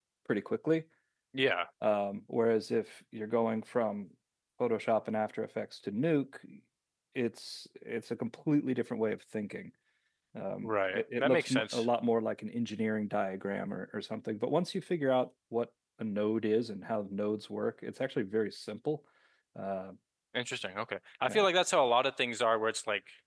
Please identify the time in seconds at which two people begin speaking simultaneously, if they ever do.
10.6 s

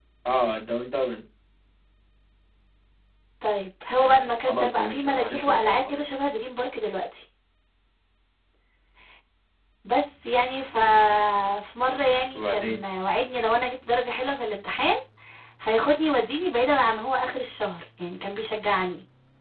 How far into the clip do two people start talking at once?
4.0 s

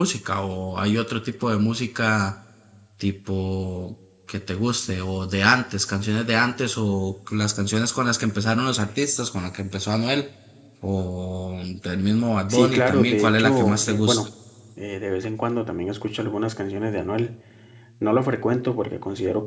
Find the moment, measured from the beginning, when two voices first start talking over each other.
12.5 s

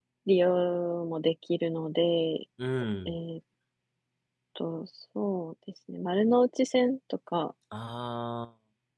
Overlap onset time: none

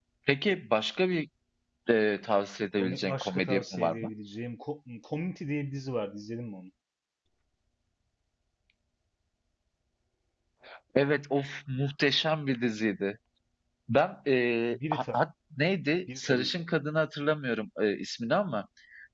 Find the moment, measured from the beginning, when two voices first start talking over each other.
2.8 s

